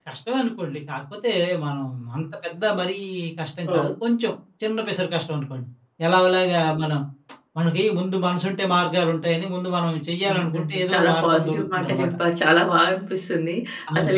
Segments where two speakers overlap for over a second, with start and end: 10.3-12.1

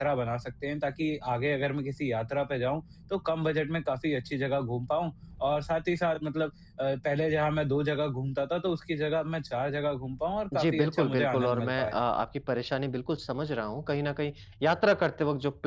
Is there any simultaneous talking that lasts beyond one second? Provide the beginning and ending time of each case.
10.5-12.0

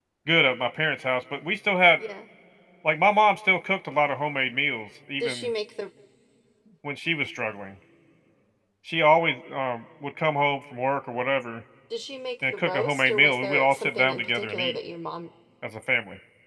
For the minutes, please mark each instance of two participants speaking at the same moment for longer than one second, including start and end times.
12.5-14.8

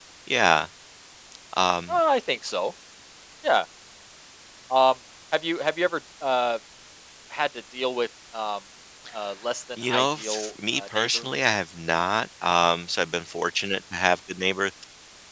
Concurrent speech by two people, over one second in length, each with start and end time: 9.8-11.3

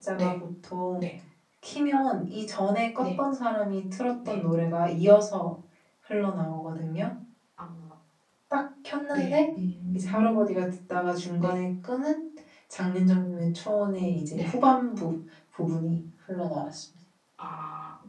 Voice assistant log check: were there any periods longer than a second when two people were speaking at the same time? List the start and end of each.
none

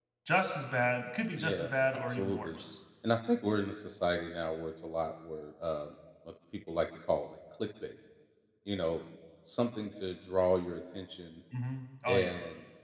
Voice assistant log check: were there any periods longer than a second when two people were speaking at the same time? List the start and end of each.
1.4-2.6

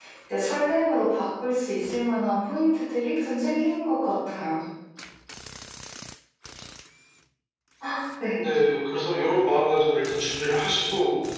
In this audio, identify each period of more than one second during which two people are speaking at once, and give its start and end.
none

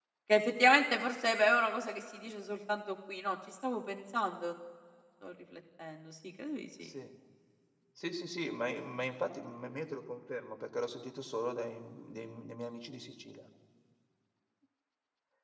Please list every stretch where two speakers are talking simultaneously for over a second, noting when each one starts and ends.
none

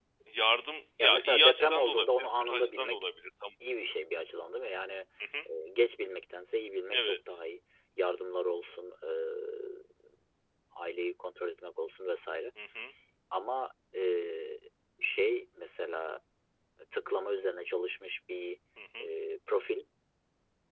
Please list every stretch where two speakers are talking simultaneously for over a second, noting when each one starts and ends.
1.0-3.1

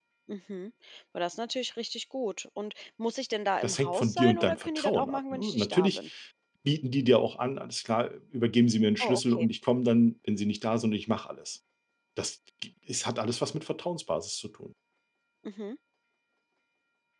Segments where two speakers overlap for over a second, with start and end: 3.6-6.1

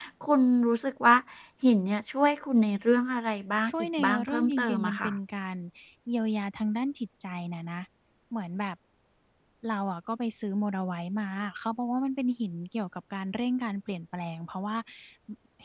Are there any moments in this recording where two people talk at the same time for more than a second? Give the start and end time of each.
3.7-5.2

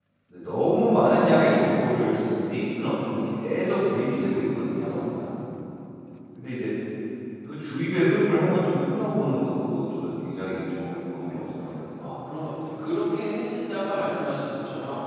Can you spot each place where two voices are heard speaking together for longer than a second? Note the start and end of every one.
none

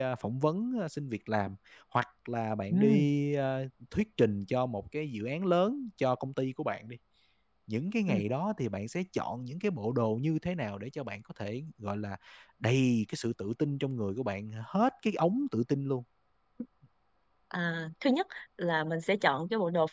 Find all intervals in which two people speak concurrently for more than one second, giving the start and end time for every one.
none

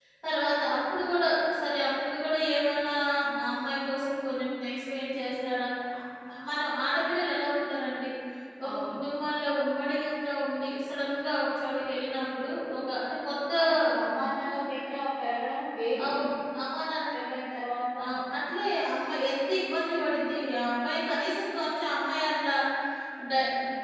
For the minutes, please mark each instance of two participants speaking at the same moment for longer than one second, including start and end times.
none

